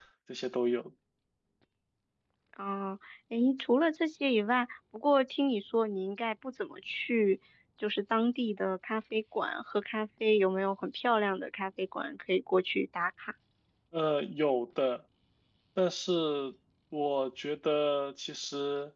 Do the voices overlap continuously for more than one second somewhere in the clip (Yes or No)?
No